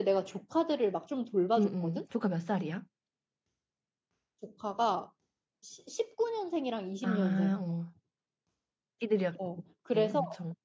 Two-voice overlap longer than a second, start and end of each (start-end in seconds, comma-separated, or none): none